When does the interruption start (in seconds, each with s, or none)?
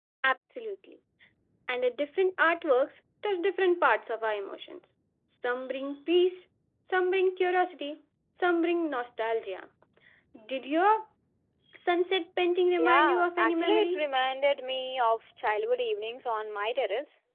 12.8 s